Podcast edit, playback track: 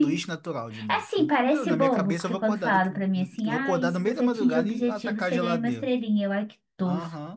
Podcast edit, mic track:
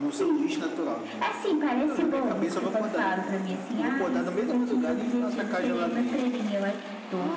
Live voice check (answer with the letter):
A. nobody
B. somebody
A